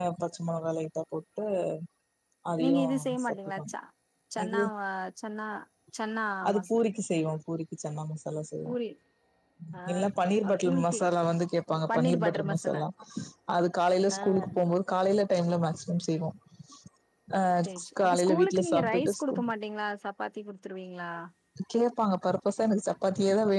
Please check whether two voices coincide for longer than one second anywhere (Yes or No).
Yes